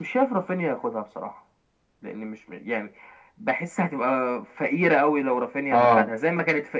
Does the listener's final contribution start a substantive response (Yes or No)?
No